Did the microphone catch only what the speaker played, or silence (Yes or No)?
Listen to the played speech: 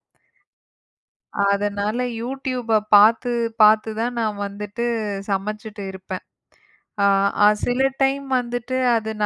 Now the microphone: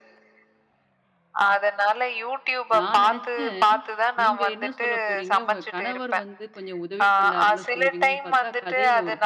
No